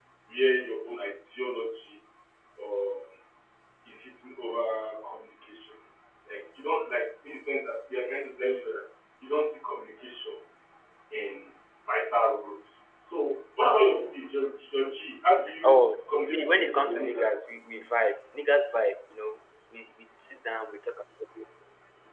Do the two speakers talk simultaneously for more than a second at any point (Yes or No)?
Yes